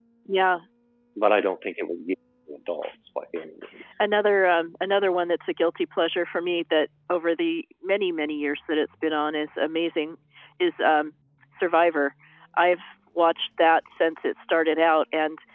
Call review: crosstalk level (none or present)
none